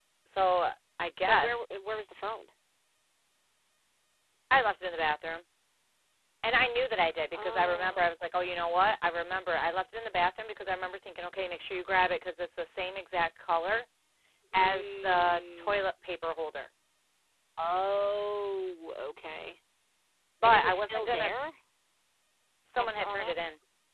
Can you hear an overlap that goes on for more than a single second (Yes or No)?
Yes